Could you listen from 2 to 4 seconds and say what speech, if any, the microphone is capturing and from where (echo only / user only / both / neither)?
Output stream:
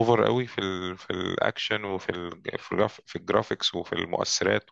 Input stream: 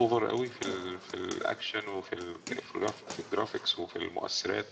echo only